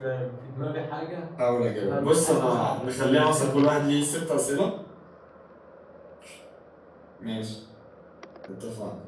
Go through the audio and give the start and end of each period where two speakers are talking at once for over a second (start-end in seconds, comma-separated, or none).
1.8-3.6